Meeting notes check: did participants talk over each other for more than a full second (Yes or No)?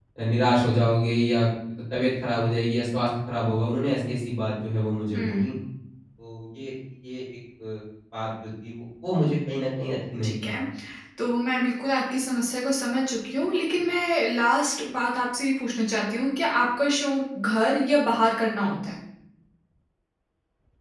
No